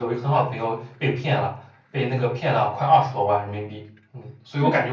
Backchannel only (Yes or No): Yes